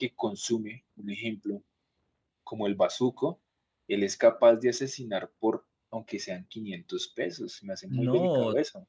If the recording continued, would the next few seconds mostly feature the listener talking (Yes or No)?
Yes